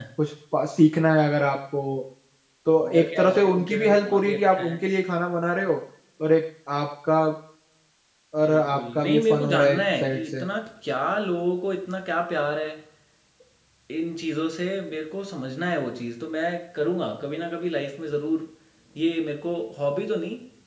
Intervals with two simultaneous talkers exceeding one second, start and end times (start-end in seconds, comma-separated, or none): 2.9-4.8, 8.5-10.4